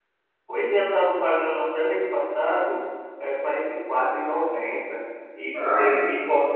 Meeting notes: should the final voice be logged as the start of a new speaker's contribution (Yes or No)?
No